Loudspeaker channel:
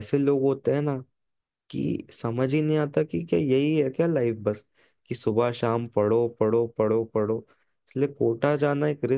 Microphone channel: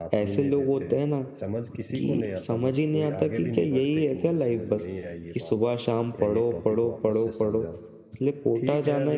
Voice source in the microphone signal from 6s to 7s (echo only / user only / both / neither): both